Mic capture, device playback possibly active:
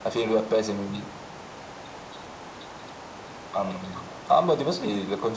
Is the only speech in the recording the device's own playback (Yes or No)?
Yes